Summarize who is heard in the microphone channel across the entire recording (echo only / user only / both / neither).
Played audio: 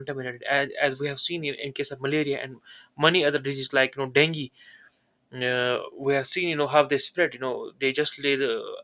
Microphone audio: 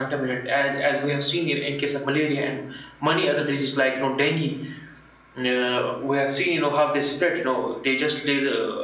echo only